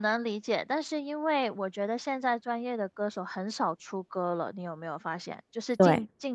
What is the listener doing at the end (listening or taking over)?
listening